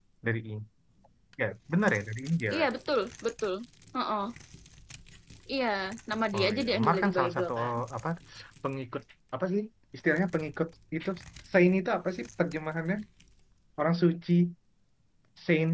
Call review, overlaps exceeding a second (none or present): present